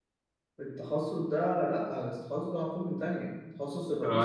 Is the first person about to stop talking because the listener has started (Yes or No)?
Yes